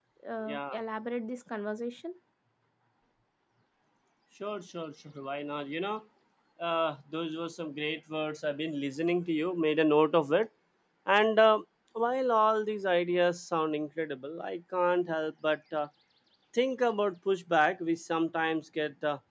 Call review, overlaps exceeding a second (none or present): none